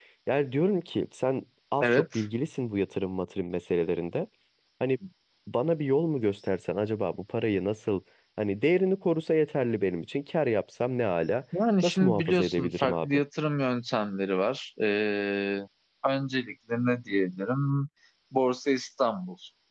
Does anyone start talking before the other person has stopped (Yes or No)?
Yes